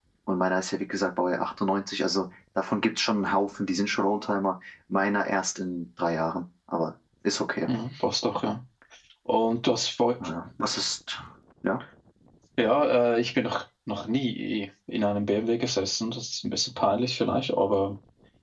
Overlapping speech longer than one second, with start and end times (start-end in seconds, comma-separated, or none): none